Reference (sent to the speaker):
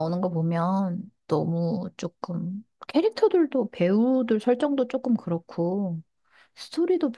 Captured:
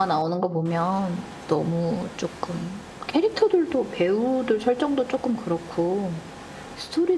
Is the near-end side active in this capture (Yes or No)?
No